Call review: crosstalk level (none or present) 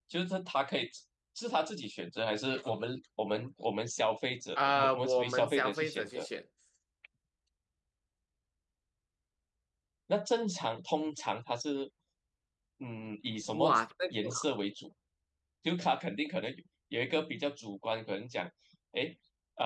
present